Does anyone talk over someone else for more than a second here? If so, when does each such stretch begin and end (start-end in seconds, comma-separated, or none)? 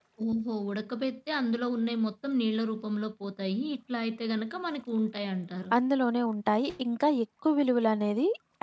none